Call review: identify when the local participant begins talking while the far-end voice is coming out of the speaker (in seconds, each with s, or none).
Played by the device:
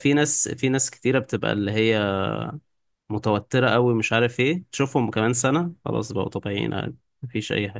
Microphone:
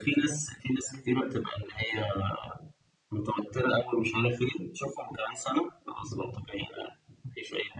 none